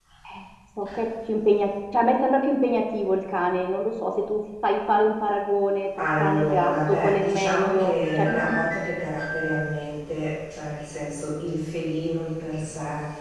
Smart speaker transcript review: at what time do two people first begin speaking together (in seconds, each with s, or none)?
6.0 s